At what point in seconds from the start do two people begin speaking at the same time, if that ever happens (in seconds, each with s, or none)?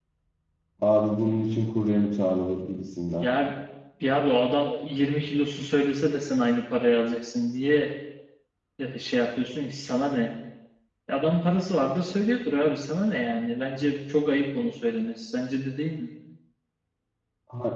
none